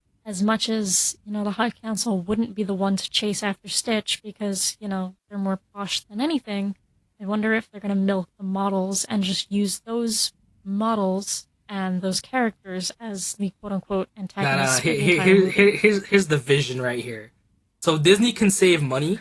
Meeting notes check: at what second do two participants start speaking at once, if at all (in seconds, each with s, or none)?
14.4 s